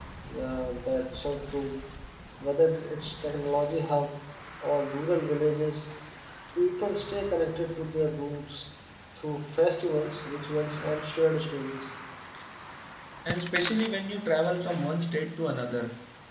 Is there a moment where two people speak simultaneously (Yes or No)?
No